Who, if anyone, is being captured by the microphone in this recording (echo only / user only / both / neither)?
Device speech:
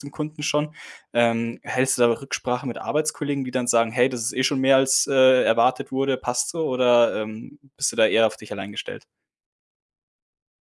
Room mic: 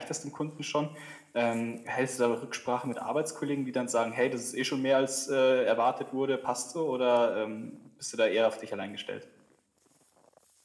echo only